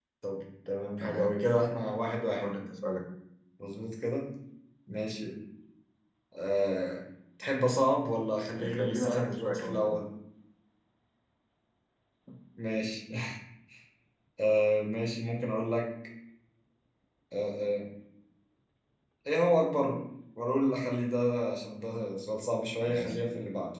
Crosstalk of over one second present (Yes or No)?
Yes